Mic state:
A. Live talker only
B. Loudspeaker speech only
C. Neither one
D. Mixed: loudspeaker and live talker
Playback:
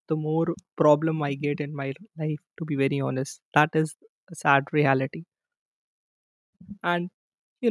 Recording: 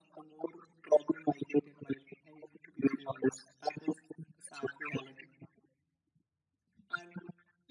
B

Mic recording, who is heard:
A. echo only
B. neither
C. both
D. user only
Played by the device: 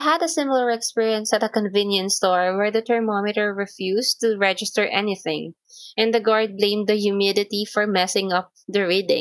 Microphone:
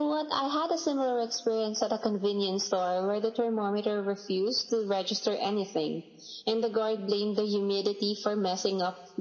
A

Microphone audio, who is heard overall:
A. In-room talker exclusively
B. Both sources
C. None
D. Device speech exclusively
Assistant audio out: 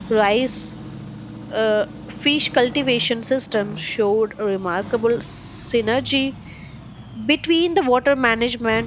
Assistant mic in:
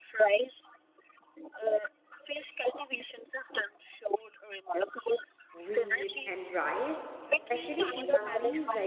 B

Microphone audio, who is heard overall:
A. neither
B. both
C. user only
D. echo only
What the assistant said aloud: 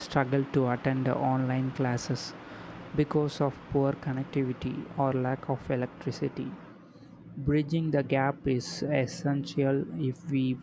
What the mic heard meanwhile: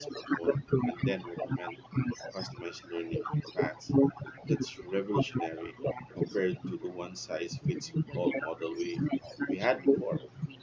B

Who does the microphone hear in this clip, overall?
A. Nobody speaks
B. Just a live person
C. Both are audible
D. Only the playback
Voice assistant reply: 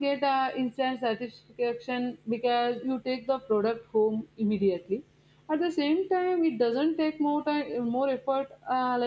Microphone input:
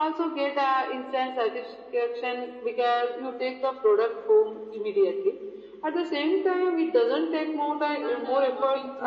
C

